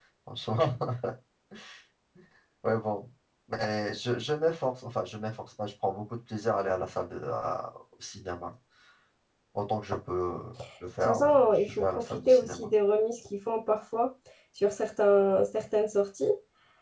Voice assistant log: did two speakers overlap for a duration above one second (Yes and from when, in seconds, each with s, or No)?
Yes, from 11.0 s